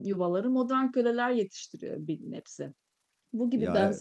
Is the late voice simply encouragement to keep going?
Yes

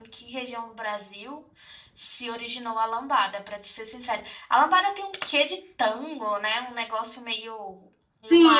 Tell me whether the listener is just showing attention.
No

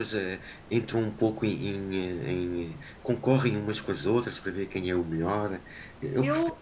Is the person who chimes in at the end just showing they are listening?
Yes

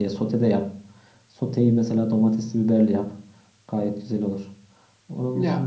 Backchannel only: No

